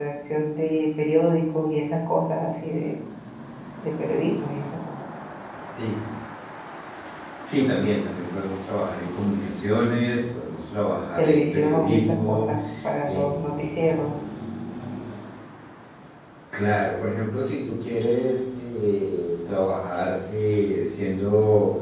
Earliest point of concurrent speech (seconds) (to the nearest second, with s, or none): 11 s